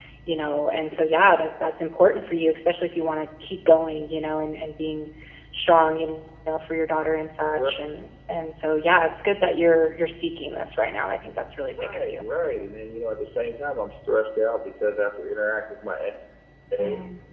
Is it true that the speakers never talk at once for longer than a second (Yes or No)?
Yes